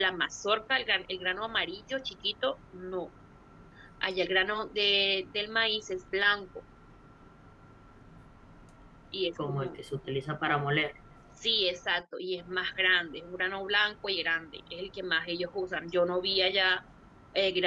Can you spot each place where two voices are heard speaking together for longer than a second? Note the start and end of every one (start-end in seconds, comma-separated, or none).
none